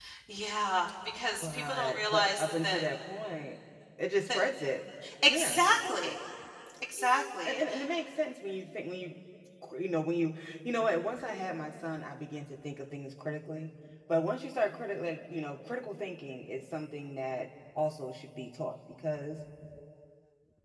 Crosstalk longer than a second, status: present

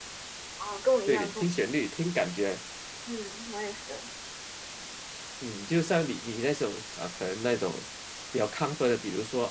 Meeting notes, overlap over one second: none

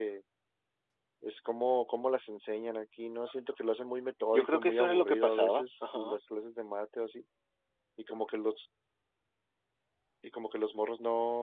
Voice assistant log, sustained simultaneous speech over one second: present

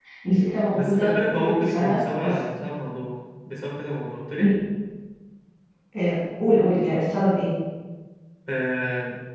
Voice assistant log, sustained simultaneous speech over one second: present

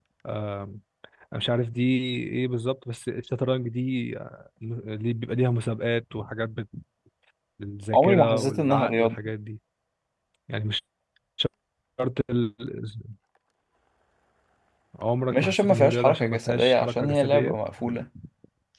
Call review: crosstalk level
present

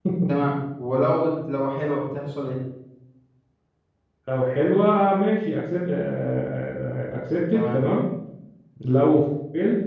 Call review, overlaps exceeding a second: none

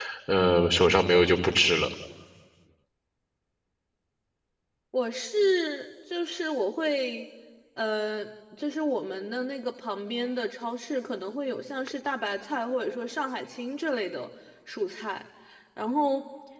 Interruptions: none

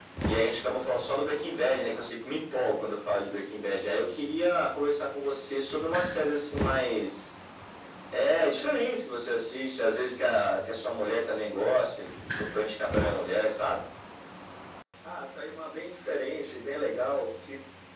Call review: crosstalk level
none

